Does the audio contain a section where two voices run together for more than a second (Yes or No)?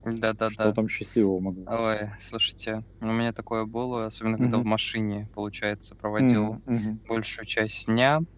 No